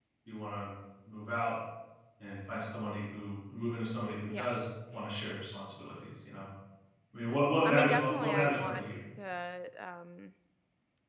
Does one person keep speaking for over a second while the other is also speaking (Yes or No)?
Yes